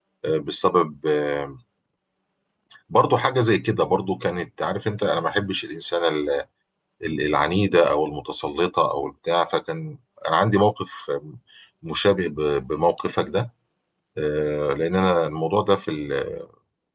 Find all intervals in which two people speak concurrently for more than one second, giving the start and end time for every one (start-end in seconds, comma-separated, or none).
none